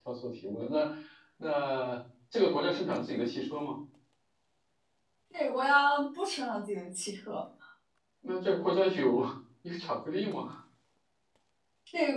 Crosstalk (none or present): none